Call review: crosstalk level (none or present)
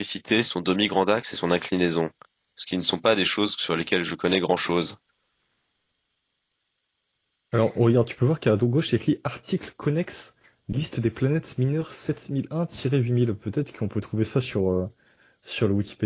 none